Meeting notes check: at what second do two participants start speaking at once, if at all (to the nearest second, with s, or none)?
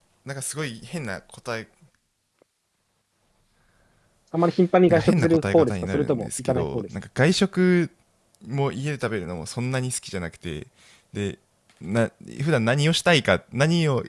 5 s